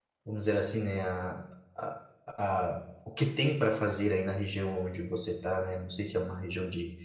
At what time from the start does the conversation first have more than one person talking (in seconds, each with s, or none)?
none